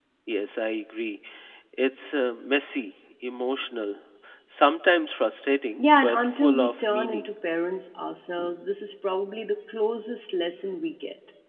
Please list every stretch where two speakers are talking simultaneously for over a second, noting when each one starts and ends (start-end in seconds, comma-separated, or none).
5.8-7.3